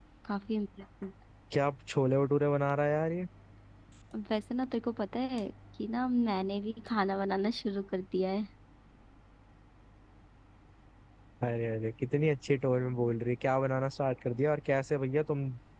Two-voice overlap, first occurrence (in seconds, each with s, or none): none